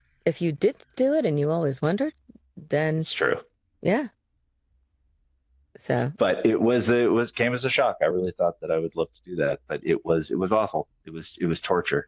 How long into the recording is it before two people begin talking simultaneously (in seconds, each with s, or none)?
none